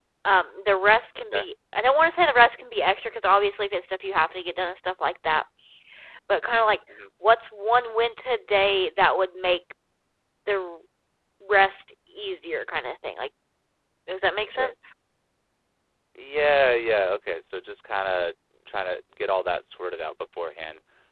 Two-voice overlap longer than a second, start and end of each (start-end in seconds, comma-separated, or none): none